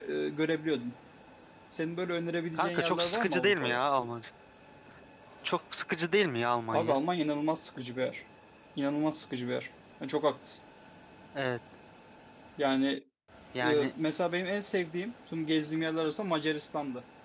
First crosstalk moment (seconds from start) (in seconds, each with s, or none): 2.5 s